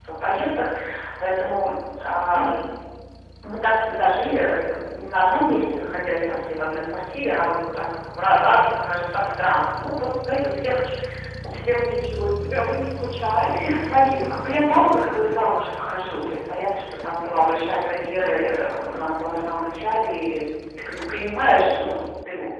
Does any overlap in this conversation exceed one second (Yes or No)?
No